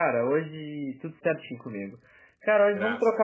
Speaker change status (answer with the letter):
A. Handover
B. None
B